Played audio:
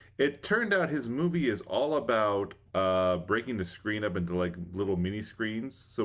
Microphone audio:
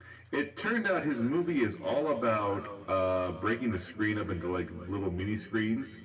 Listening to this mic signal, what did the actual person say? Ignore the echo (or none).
none